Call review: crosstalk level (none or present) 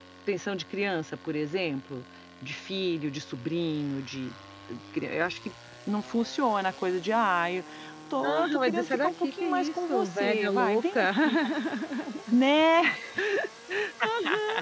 present